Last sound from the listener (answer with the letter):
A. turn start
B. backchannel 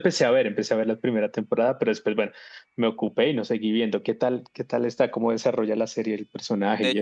A